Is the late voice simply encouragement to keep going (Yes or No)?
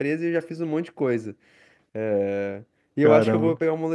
Yes